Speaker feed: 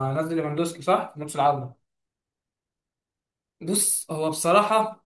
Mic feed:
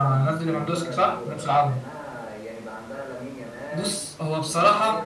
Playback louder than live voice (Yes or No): Yes